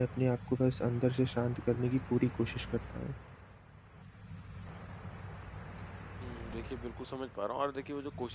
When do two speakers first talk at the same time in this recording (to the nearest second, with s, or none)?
none